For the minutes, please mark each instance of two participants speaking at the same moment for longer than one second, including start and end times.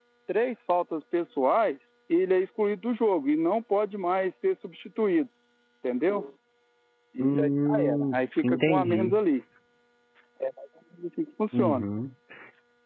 7.2-9.1

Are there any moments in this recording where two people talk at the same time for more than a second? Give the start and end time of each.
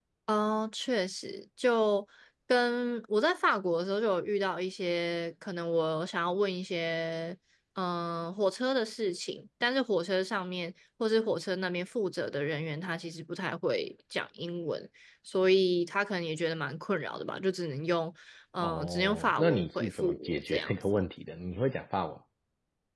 18.6-20.7

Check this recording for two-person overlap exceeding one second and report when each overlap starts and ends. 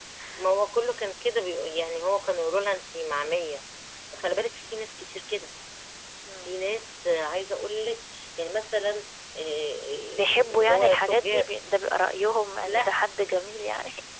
10.2-11.5

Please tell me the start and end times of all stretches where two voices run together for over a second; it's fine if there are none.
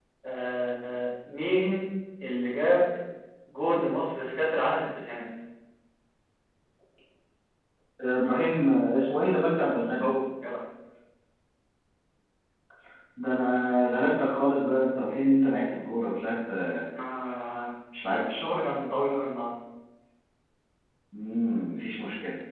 none

